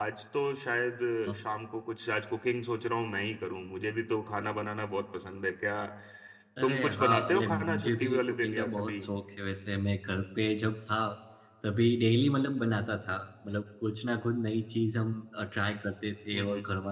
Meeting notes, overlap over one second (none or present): present